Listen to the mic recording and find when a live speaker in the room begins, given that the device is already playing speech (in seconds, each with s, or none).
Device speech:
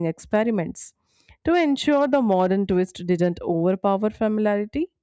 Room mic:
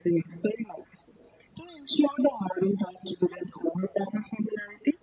none